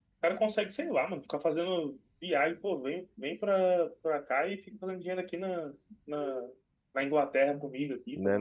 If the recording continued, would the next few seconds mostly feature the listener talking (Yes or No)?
Yes